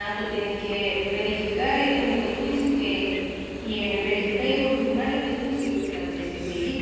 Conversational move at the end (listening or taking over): listening